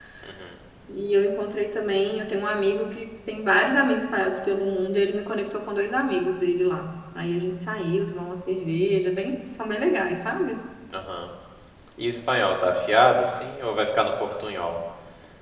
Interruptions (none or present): none